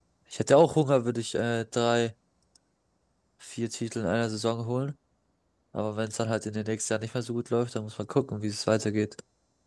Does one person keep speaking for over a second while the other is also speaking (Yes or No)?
No